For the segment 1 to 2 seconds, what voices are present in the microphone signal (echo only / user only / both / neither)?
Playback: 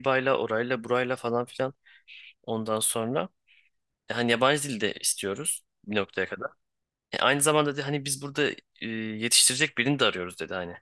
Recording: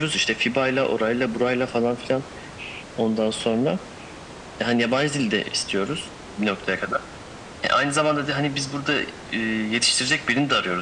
echo only